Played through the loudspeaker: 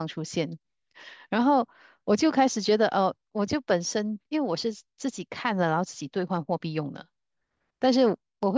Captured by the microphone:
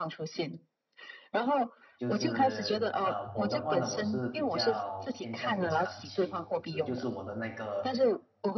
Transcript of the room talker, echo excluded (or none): 就是呃，我的话呢，我是比较偏向于长期投资，就是我的那个